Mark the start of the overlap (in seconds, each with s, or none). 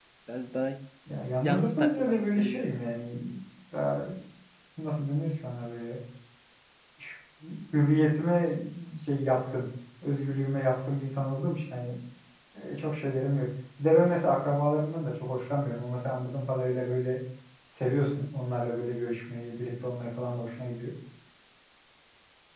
1.4 s